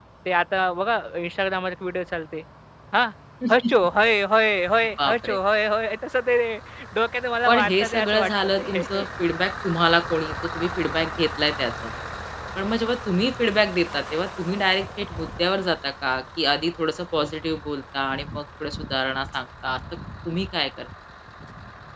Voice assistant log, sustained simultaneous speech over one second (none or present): present